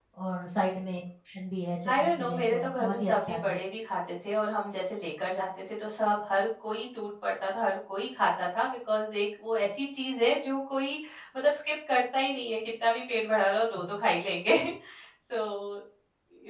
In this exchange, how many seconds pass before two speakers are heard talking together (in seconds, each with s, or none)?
1.8 s